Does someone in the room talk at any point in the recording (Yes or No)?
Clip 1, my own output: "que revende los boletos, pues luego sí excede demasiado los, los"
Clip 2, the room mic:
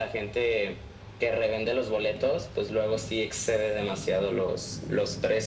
No